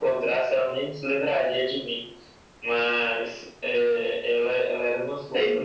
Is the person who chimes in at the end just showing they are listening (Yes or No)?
Yes